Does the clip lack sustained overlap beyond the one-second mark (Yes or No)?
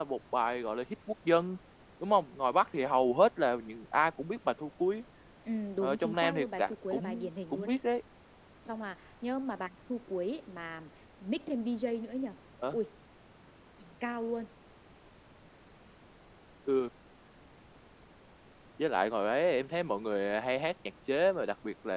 No